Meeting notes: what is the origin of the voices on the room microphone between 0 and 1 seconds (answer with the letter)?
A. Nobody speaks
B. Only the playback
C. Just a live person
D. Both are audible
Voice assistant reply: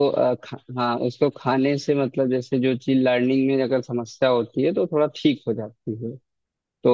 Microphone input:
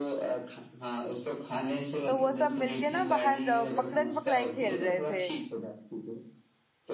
B